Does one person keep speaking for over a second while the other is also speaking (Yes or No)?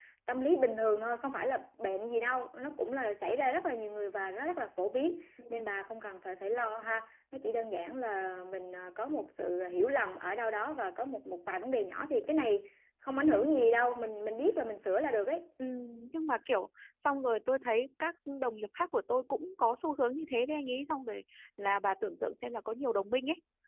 No